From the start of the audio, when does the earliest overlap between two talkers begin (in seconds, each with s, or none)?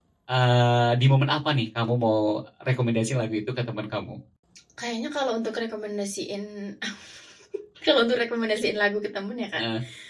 none